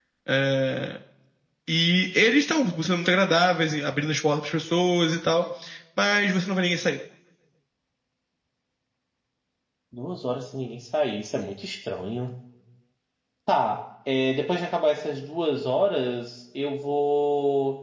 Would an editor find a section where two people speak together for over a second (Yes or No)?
No